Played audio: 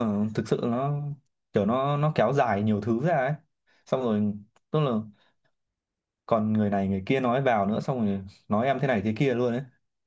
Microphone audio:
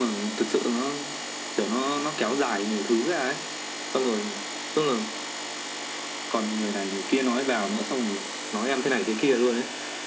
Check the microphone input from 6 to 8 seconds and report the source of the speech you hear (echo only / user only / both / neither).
echo only